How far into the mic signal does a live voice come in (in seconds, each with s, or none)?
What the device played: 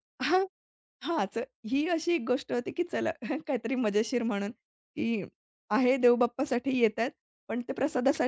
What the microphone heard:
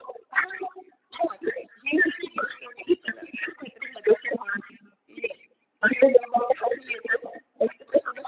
none